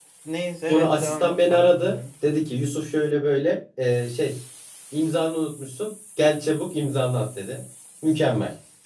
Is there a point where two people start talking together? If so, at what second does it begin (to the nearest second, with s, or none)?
1 s